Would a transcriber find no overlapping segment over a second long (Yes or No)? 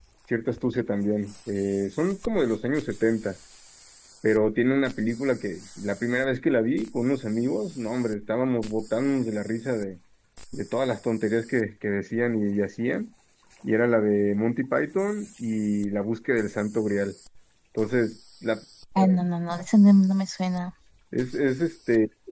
Yes